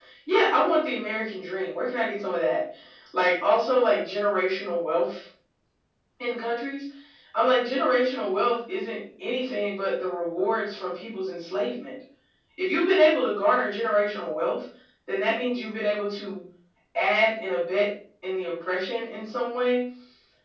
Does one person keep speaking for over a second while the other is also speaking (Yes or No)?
No